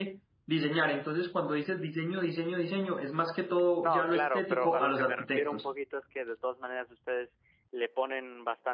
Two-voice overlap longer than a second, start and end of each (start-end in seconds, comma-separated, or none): 3.8-5.7